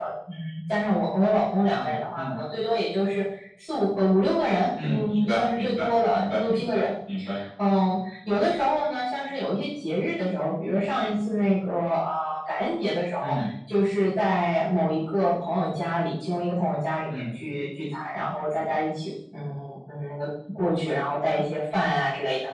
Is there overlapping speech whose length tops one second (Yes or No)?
Yes